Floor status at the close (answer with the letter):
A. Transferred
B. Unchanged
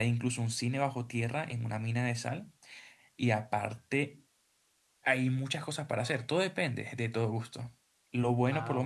B